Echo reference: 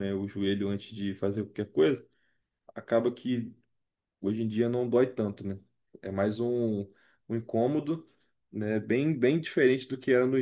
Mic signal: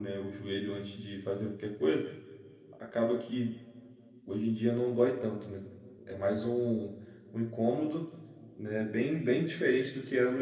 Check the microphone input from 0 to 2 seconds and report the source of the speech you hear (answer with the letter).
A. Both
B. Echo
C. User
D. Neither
B